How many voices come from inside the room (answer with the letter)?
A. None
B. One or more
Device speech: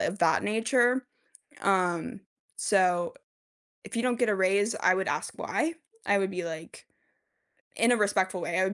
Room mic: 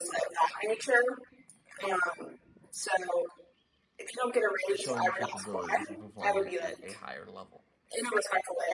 B